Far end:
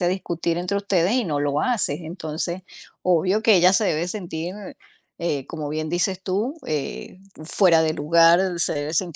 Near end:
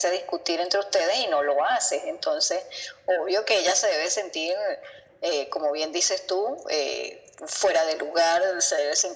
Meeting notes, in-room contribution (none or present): none